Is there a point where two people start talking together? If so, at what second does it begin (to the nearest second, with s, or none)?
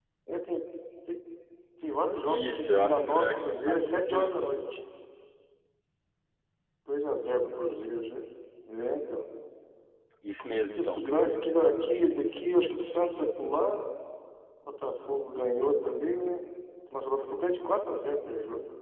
2 s